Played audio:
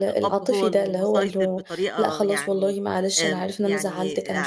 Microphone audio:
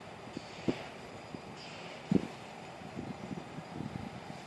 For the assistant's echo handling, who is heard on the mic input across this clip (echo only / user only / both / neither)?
neither